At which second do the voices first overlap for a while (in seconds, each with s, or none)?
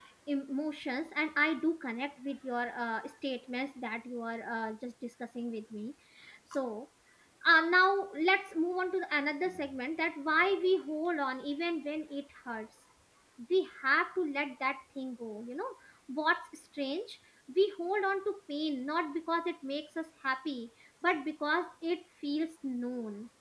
none